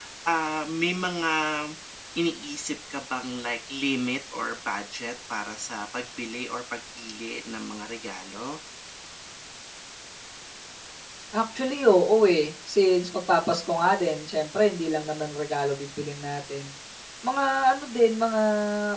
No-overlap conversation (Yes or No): Yes